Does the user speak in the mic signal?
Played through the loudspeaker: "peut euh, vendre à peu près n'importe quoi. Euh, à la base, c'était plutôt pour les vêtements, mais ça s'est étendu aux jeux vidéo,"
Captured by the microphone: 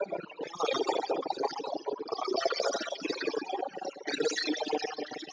No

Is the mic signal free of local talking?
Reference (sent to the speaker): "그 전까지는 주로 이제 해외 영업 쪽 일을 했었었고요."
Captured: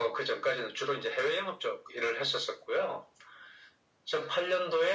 Yes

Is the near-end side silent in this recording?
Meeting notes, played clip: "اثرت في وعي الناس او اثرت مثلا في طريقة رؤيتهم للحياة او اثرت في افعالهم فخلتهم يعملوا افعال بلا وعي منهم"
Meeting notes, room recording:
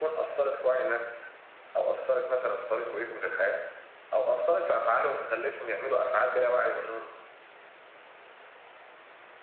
Yes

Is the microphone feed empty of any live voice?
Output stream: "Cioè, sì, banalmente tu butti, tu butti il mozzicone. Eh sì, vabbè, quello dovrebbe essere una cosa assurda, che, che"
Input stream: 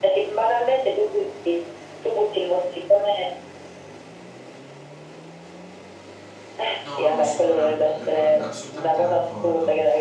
No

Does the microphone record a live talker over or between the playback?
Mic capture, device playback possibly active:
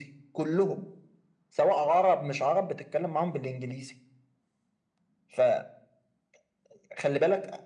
No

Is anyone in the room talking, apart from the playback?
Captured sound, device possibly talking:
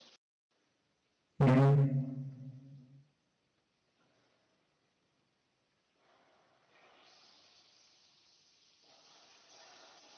Yes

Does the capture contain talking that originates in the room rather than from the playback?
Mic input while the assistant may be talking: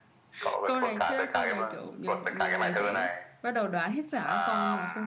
Yes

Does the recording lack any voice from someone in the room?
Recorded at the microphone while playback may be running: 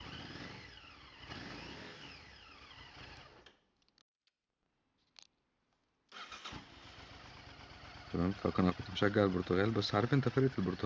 No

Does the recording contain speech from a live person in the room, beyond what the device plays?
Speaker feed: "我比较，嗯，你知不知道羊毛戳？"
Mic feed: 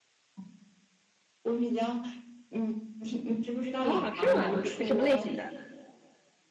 Yes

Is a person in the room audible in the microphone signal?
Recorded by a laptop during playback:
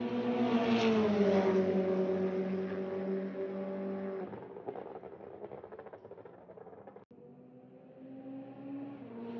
No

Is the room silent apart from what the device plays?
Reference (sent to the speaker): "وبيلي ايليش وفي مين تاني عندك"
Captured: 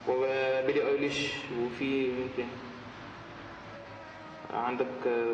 Yes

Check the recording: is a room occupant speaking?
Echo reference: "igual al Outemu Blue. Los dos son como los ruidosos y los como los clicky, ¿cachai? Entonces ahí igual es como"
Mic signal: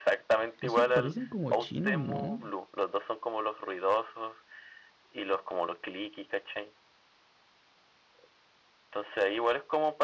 Yes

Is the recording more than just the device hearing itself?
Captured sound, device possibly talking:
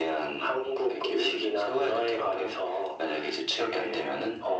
No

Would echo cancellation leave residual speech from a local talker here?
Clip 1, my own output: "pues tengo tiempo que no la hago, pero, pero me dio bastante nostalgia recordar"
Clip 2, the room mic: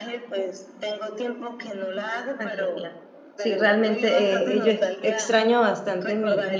Yes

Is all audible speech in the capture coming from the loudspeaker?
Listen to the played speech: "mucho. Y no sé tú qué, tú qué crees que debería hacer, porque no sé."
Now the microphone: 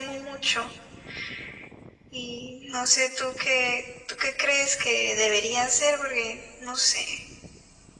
Yes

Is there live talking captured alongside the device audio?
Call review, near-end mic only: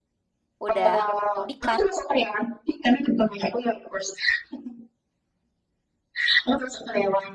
Yes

